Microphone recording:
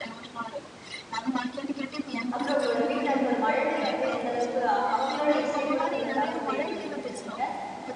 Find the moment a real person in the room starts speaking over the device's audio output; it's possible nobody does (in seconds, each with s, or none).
2.4 s